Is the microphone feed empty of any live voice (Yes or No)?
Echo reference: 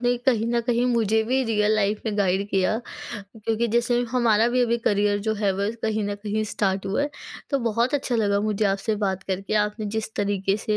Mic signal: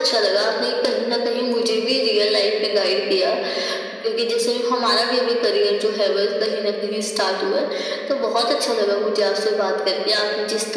Yes